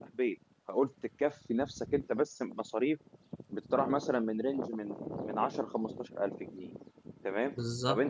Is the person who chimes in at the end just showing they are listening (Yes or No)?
Yes